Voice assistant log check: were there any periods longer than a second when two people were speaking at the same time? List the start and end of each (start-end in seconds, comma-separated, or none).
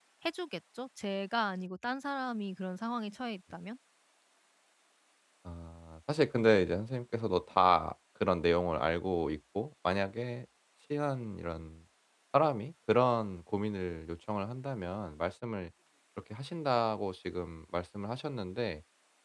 none